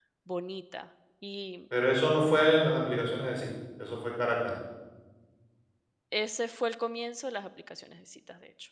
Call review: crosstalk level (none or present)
none